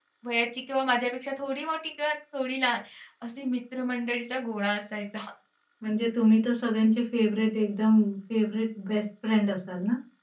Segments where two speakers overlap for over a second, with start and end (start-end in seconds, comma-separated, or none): none